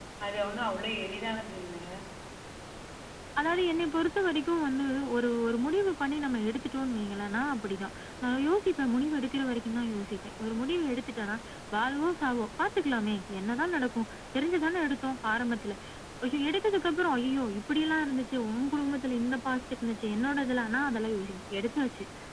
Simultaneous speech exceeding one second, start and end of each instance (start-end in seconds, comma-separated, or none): none